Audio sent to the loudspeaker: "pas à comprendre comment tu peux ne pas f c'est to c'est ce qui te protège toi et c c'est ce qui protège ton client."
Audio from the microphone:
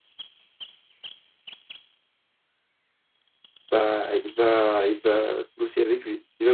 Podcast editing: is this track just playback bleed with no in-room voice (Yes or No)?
No